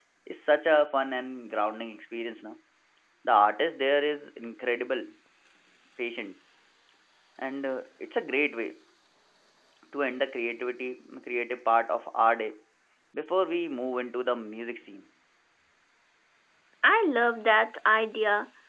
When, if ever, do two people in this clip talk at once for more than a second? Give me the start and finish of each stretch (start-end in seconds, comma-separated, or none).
none